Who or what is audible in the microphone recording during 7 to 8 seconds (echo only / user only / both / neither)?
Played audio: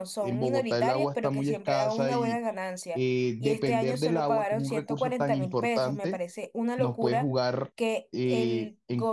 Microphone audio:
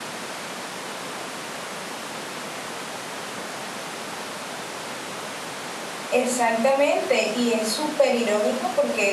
user only